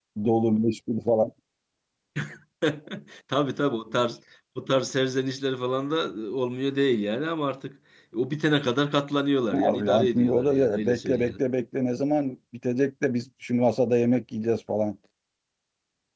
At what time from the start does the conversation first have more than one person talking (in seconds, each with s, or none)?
9.5 s